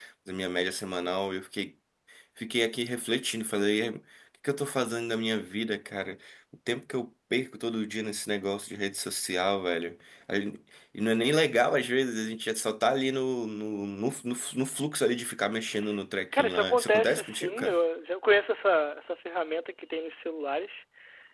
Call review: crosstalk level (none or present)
present